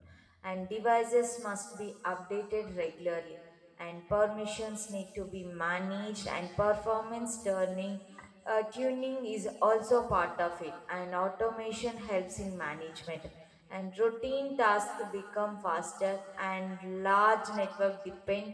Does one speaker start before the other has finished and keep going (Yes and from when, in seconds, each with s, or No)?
No